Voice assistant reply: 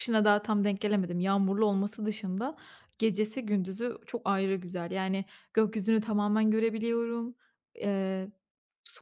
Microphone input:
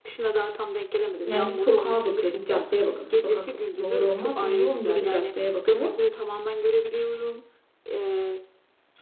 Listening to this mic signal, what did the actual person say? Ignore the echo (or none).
yani bir sokağa bakıyor, bir caddeye bakıyor. Sokak doğru olmaz. Uzunca bir caddeye bakıyor,